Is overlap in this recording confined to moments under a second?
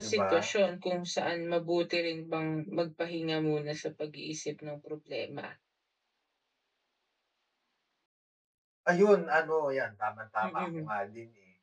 Yes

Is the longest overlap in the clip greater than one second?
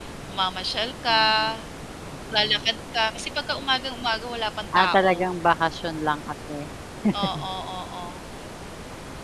No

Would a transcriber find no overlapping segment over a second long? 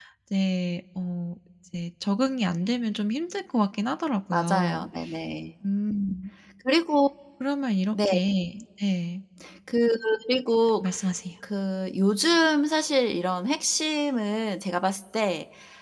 Yes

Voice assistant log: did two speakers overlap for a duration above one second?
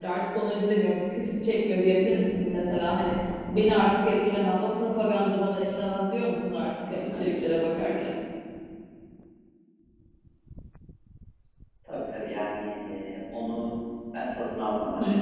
No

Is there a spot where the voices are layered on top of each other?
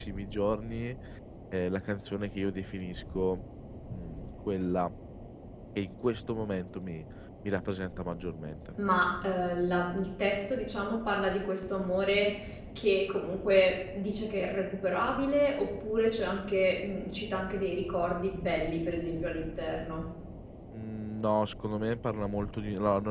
No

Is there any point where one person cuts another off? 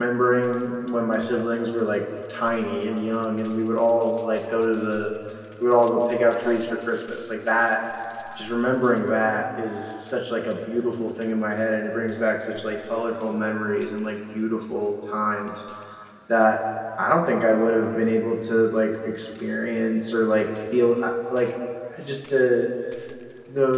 No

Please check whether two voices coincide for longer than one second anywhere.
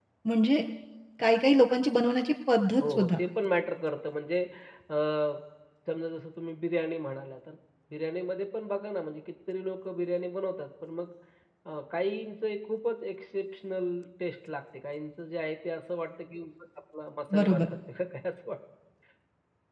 No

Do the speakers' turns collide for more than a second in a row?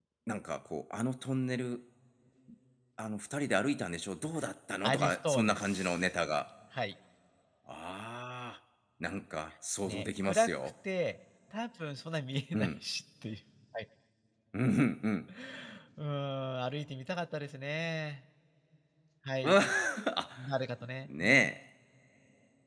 Yes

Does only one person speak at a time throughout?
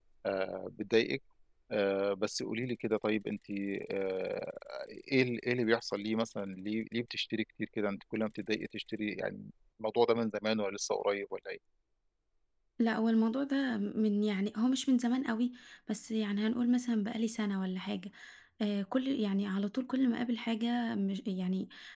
Yes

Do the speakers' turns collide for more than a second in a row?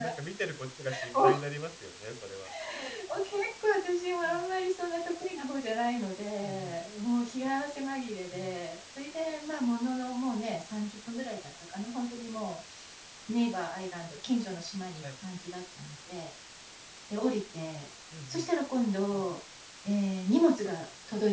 No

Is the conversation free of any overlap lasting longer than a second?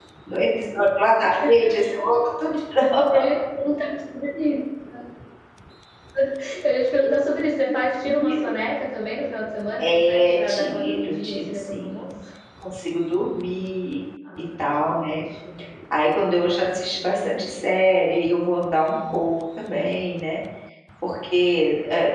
No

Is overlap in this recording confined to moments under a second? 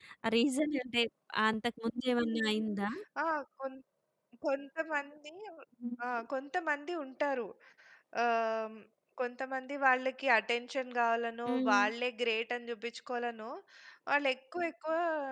Yes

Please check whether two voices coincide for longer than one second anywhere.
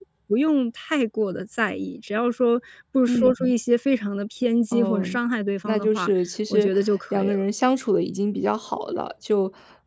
No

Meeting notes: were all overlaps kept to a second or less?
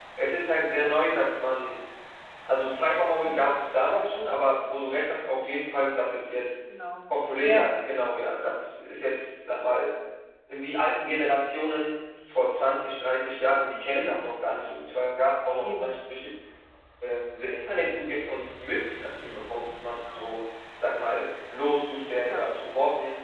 Yes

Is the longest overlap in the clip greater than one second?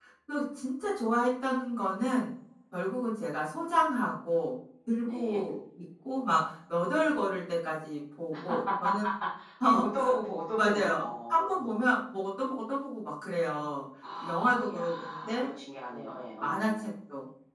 Yes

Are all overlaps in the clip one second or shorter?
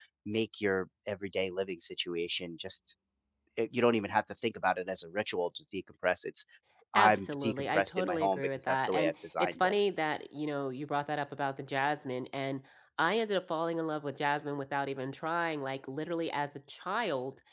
No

